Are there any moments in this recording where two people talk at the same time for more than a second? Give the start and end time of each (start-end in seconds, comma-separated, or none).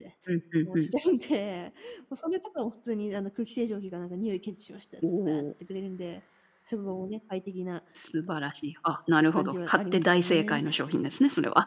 9.4-10.6